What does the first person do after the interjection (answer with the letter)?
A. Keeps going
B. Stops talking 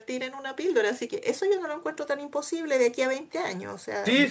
B